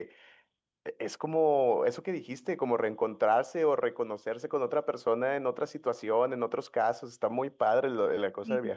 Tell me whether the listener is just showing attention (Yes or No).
No